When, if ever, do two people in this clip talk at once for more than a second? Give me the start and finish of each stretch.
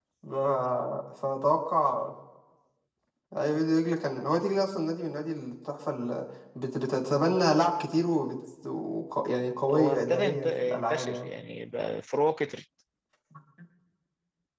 9.7-11.3

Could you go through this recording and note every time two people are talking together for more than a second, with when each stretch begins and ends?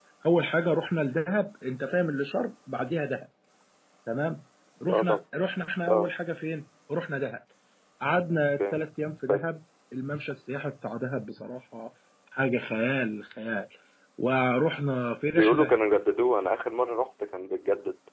none

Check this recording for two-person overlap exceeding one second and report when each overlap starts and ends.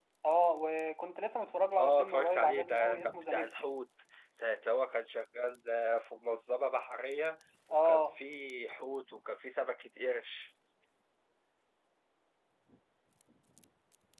1.8-3.5

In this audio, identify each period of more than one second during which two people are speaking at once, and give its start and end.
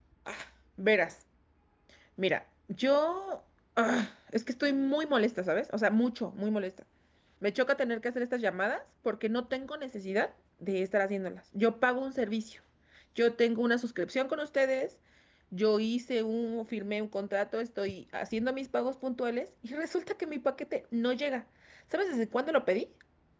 none

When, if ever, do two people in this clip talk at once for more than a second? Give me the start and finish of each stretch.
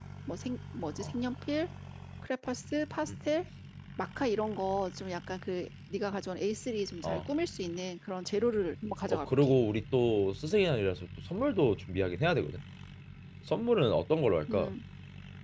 none

